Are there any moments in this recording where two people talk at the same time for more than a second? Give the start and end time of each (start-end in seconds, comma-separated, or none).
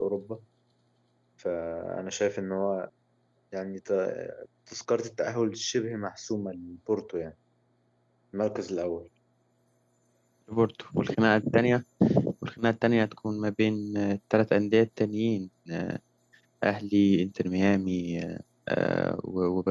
none